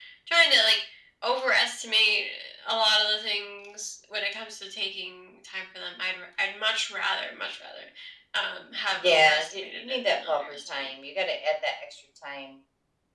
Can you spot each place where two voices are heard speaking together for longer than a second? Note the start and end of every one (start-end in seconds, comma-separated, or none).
8.9-10.9